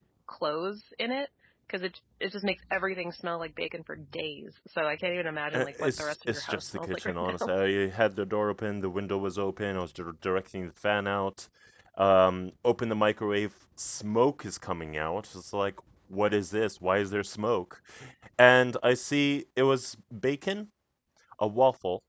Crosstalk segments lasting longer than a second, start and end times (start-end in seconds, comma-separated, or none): 5.5-7.5